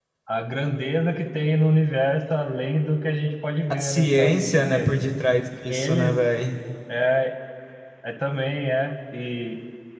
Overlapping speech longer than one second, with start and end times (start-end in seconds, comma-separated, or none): 3.7-4.9